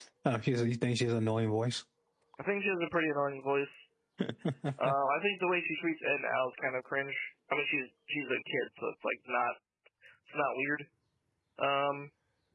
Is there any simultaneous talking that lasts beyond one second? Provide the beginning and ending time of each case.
none

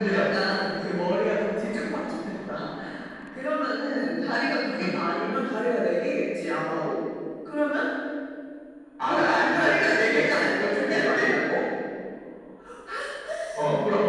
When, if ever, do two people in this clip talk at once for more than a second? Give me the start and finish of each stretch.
9.0-11.3

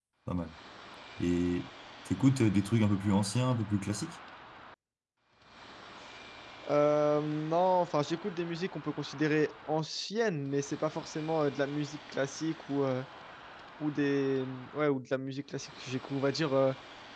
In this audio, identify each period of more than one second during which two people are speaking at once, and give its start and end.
none

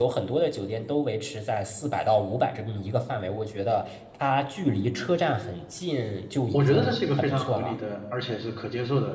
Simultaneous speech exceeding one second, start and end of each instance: 6.5-7.7

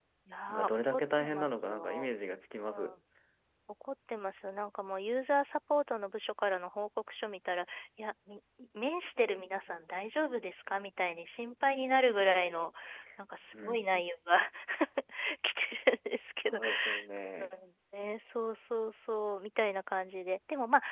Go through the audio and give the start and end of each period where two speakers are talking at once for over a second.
0.7-2.1

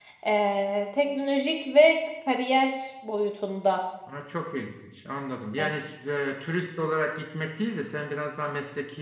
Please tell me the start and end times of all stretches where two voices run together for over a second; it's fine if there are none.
none

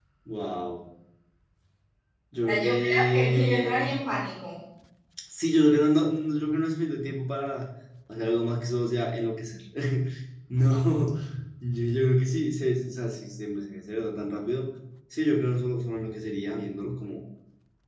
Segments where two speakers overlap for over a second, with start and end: 2.5-3.9

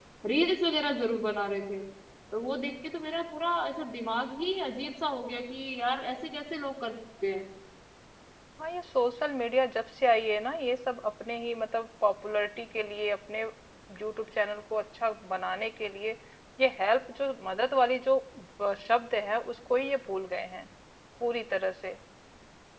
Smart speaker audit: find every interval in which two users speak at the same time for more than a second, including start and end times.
none

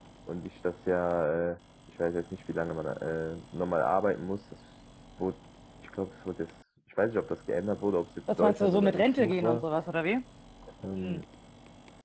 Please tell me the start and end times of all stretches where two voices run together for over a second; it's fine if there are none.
8.4-9.6

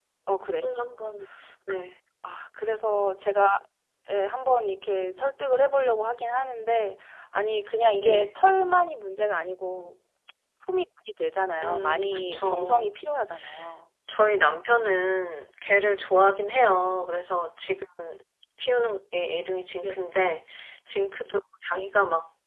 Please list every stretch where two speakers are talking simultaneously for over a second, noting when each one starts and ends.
11.6-12.9

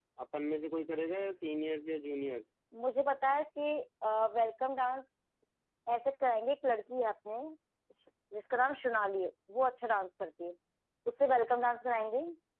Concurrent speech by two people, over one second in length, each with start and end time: none

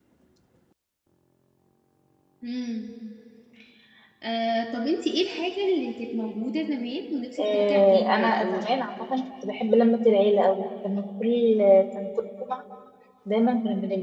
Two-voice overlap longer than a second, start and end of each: 7.4-8.7

